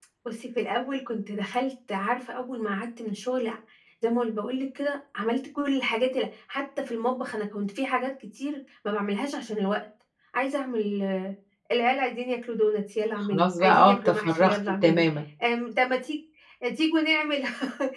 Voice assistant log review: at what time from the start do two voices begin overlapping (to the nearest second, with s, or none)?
13 s